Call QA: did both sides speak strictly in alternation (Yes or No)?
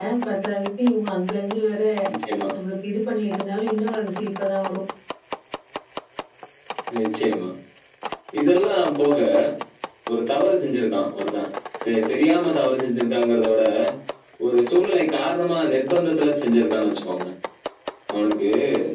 Yes